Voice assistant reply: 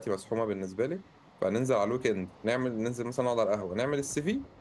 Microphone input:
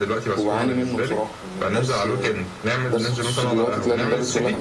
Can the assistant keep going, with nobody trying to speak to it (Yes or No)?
No